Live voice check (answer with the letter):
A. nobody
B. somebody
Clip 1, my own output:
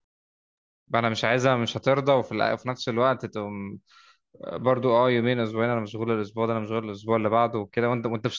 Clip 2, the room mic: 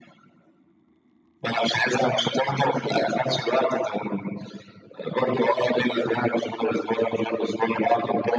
A